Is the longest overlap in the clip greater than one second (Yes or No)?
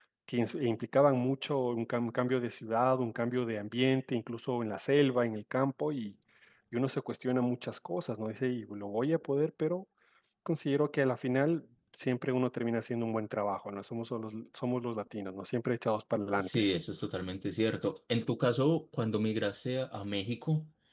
No